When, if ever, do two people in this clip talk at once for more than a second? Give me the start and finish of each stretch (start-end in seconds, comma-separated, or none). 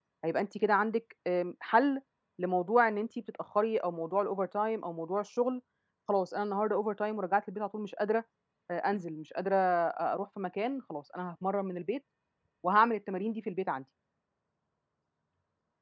none